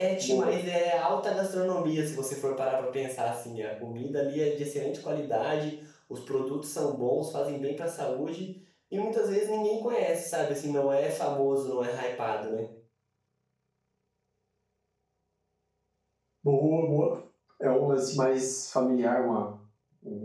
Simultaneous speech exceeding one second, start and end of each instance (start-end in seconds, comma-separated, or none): none